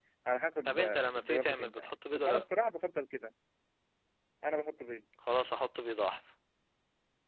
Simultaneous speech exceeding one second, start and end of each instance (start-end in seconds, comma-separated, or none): 0.7-2.4